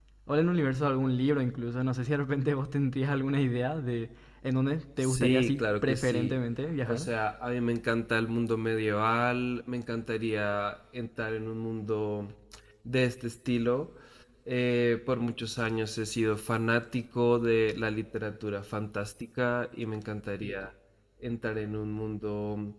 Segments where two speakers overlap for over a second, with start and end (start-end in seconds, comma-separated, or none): 5.0-6.4